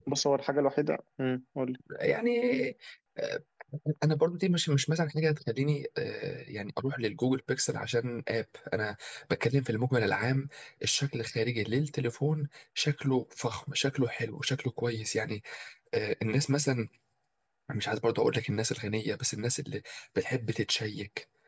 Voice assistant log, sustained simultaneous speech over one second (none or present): none